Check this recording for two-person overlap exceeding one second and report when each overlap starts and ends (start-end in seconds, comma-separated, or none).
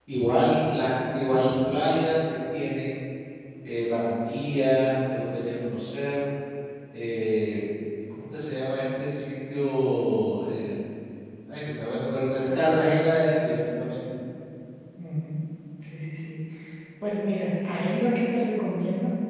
12.5-13.7